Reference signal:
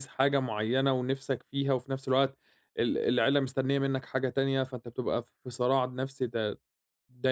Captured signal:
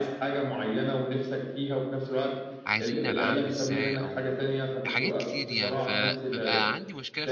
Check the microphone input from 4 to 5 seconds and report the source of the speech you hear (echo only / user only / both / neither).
both